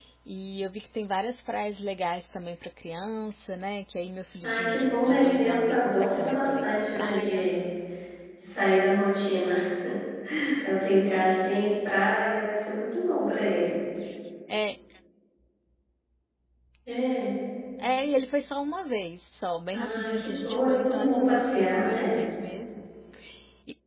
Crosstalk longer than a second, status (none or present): present